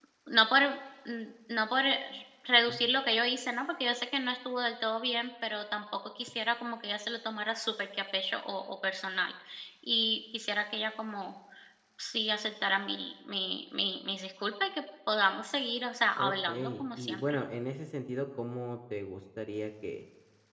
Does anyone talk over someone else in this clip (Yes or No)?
Yes